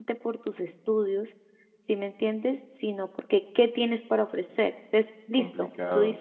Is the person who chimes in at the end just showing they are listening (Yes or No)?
No